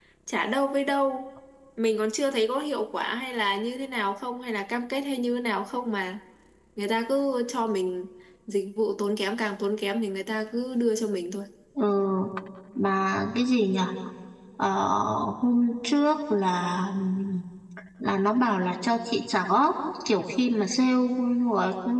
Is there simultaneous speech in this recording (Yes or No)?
No